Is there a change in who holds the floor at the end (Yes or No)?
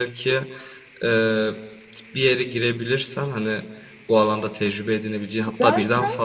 No